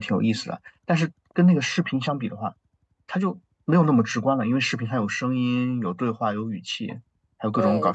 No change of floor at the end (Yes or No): No